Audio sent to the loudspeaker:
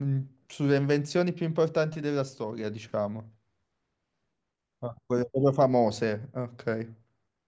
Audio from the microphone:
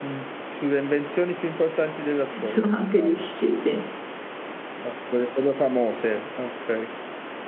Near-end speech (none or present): present